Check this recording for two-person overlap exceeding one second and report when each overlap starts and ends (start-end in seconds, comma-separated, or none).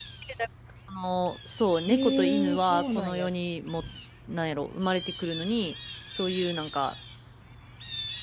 1.9-3.3